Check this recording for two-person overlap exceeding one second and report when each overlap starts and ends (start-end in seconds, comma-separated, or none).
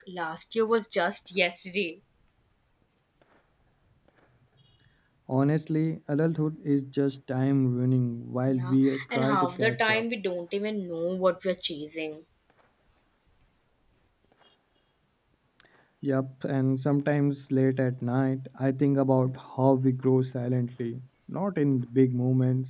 8.5-10.0